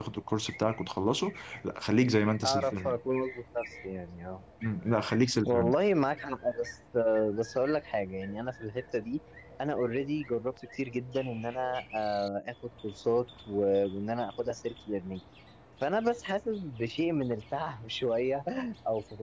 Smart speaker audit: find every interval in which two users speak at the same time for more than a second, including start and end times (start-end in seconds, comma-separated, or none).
none